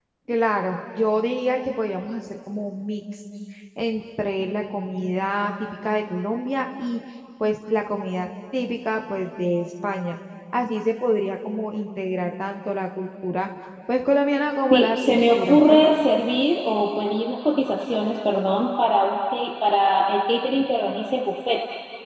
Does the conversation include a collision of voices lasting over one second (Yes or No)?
Yes